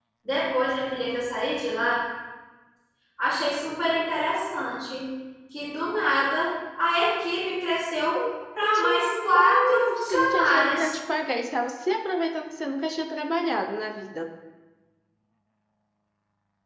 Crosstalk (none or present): present